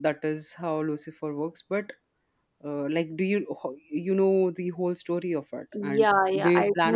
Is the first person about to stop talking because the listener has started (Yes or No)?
Yes